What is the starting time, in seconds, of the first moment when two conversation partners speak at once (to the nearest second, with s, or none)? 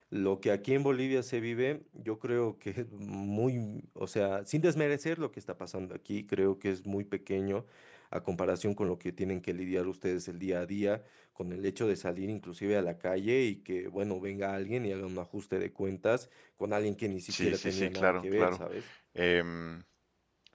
17 s